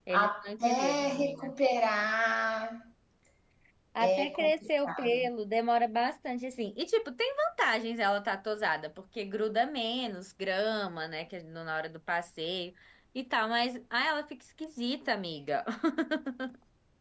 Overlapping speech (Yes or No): Yes